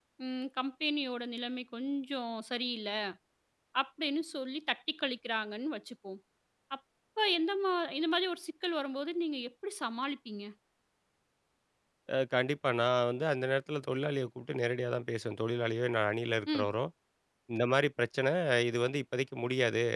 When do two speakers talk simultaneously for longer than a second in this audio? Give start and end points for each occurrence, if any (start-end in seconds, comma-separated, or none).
none